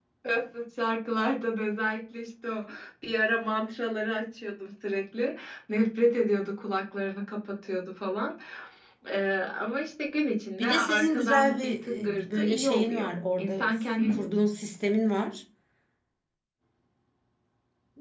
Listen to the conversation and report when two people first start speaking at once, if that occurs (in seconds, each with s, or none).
10.6 s